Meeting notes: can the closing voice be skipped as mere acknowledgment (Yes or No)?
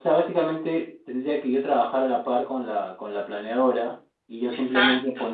Yes